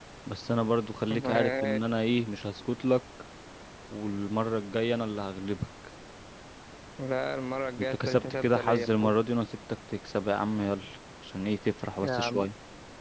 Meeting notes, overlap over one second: present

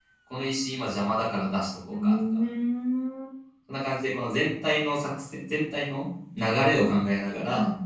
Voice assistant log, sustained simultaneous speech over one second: none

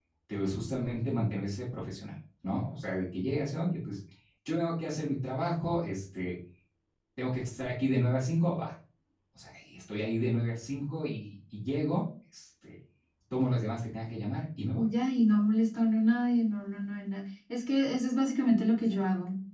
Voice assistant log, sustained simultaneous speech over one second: none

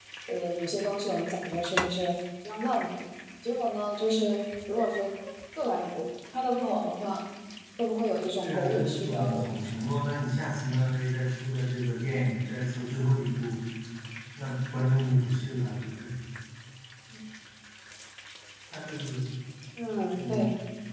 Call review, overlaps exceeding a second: present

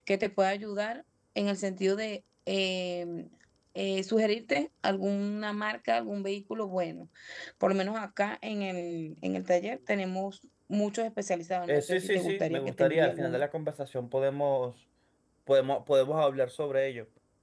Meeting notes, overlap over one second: present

